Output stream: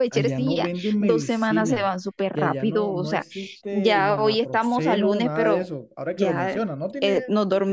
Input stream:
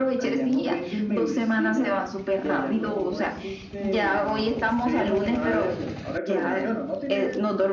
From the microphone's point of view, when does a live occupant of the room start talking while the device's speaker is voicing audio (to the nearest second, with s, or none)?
none